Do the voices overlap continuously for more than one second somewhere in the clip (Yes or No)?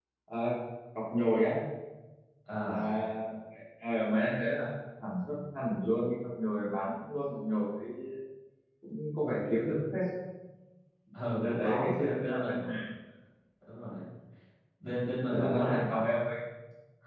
Yes